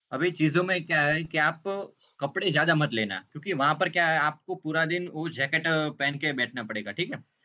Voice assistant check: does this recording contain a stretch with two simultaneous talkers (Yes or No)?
No